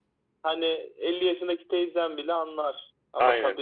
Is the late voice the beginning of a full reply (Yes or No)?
No